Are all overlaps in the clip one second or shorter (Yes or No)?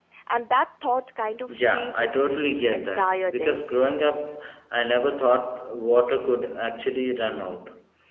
No